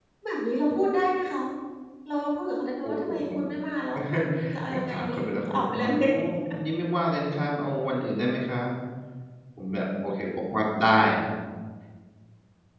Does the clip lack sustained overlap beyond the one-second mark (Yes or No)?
No